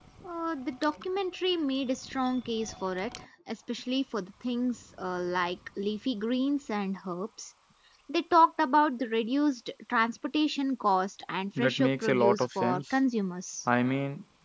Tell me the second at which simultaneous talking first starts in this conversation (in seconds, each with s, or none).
11.6 s